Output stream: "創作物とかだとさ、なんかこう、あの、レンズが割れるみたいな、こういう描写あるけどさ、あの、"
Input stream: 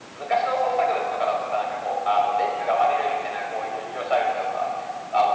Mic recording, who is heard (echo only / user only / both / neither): echo only